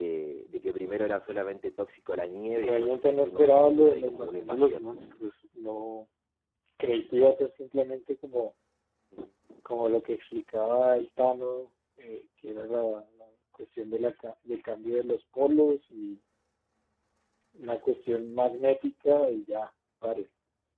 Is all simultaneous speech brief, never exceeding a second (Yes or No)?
No